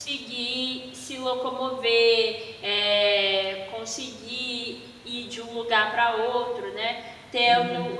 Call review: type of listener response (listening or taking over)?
listening